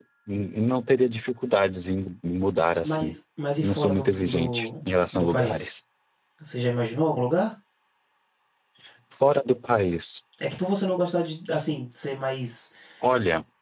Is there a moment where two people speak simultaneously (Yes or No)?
Yes